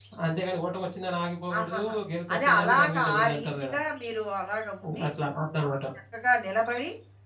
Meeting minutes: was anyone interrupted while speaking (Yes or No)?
Yes